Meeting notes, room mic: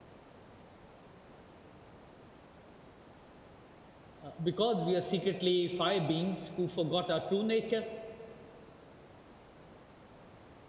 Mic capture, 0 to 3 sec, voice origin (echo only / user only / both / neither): neither